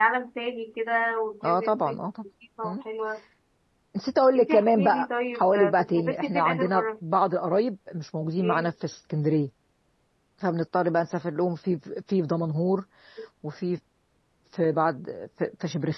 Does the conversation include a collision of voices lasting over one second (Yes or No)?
Yes